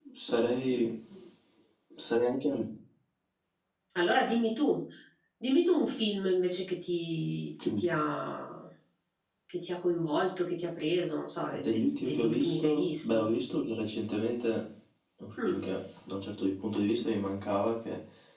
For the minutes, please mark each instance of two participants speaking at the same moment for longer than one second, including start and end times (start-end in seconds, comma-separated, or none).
11.5-13.2